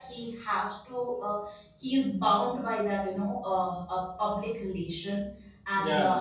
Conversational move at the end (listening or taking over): listening